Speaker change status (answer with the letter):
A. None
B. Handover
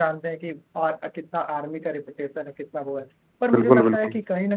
A